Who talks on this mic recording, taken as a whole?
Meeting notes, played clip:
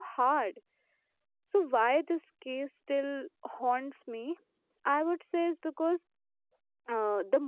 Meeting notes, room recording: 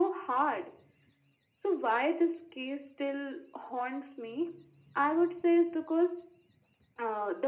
echo only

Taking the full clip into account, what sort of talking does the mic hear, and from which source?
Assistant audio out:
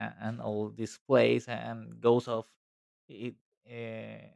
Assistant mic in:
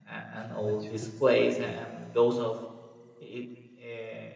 both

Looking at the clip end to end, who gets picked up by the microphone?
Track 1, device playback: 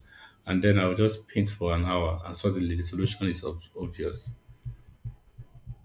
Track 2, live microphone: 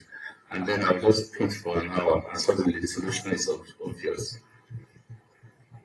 echo only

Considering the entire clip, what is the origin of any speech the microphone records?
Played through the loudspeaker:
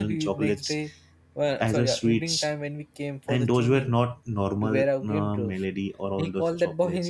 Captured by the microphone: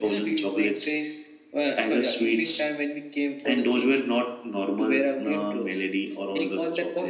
echo only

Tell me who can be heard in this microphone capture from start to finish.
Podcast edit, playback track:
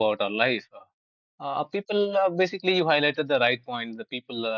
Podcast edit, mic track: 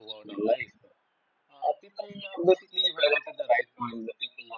echo only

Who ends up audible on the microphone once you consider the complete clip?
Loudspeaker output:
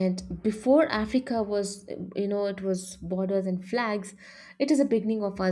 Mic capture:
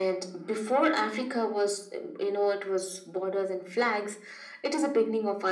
echo only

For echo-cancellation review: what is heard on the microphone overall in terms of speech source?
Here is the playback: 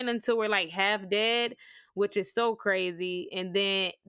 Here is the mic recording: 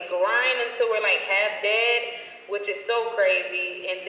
echo only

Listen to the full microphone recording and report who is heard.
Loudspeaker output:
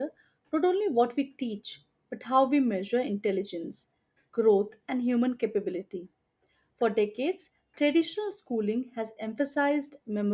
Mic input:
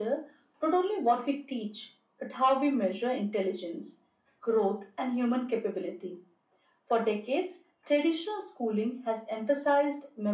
echo only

